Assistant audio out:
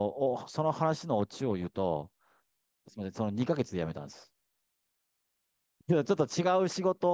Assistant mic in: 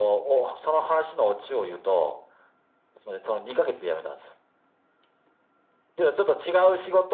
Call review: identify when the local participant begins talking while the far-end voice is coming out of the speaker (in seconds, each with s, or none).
none